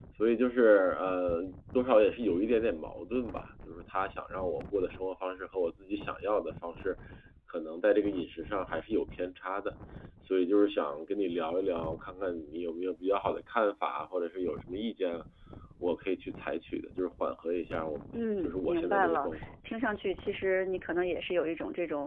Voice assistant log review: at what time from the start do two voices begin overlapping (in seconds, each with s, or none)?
18.1 s